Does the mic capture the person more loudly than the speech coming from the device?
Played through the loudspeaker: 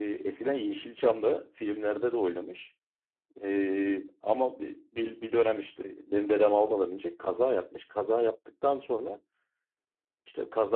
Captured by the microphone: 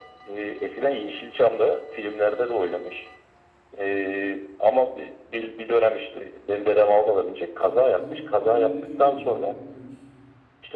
No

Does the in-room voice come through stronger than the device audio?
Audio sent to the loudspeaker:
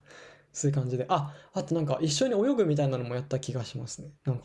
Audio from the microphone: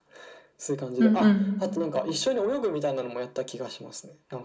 Yes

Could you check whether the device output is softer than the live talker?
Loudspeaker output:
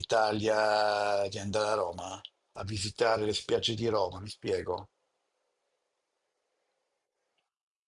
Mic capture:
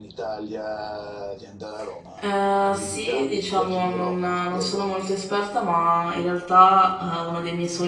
Yes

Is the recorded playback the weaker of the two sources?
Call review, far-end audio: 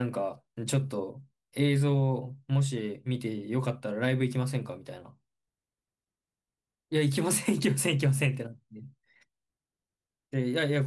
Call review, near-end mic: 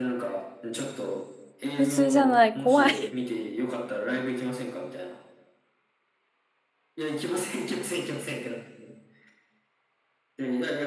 Yes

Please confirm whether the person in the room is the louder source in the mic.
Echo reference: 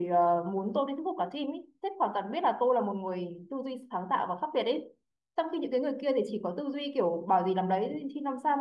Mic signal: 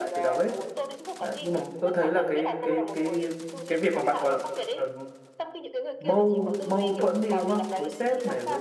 Yes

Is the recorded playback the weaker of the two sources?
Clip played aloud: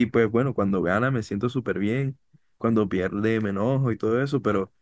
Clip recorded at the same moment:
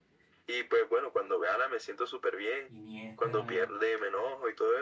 No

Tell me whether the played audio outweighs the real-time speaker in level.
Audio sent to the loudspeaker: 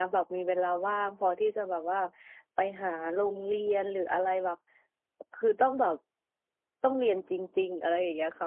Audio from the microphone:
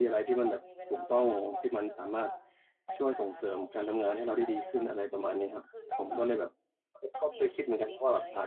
No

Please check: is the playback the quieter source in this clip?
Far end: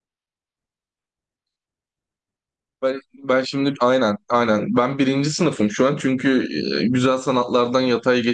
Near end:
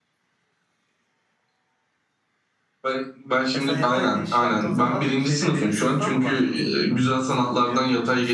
No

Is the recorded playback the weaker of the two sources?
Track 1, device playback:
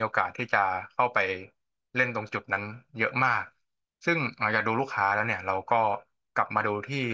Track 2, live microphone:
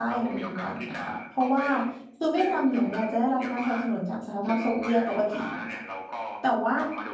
Yes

